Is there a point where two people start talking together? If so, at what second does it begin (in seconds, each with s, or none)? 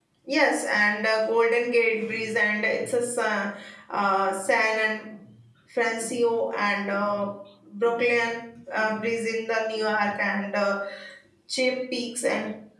none